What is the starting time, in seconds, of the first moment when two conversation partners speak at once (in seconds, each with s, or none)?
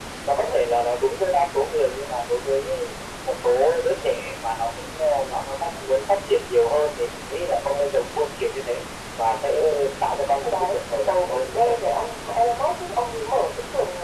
10.5 s